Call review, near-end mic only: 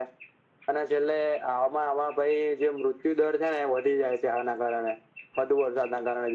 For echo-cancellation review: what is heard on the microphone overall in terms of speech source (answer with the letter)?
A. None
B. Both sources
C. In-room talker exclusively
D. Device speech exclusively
D